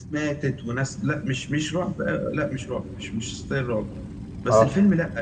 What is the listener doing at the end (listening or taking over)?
listening